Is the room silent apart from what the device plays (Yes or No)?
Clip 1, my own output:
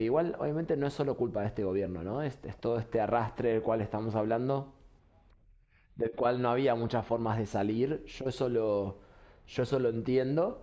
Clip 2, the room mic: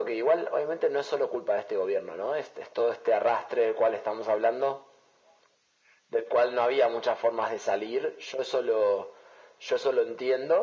Yes